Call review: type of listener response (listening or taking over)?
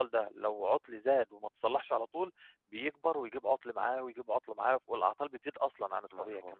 taking over